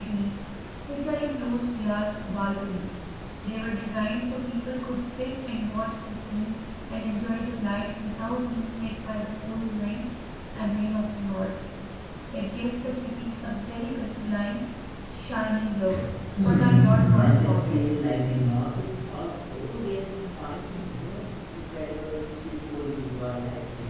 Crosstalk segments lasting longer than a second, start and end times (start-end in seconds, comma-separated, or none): 16.4-17.8